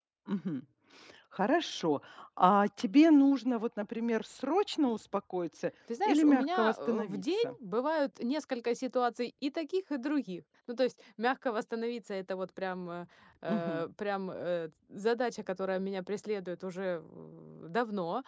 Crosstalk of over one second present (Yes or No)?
Yes